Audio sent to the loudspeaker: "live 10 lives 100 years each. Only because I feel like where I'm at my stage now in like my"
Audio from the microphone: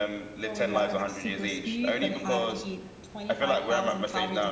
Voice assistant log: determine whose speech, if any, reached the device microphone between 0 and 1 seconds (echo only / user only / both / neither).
both